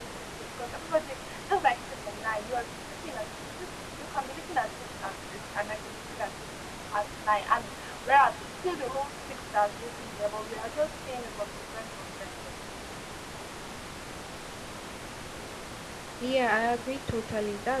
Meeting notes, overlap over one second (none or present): none